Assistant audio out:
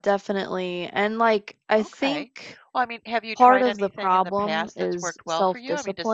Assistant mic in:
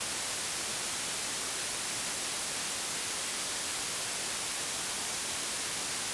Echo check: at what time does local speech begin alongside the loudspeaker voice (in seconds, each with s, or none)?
none